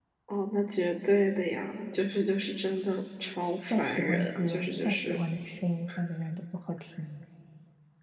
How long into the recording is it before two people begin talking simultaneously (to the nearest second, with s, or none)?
4 s